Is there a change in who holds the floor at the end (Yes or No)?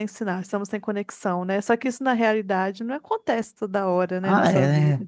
Yes